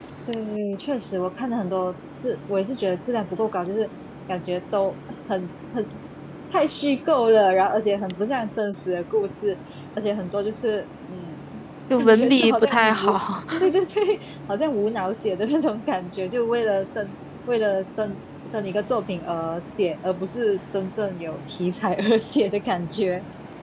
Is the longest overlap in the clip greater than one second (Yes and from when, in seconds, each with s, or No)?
Yes, from 11.9 s